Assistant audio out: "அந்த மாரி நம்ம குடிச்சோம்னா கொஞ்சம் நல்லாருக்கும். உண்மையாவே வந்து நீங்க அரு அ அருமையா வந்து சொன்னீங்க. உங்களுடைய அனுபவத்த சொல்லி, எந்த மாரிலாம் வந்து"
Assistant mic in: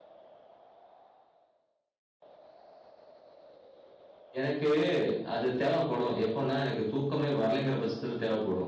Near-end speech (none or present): present